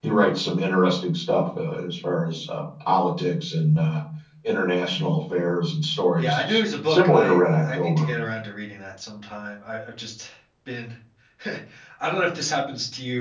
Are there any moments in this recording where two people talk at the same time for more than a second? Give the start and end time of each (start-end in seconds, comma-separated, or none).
6.2-8.1